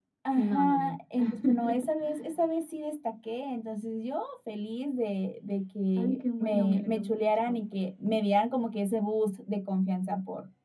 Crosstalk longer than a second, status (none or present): present